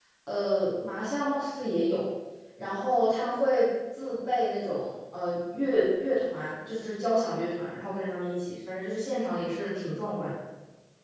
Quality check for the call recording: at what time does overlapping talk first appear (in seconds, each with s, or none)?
none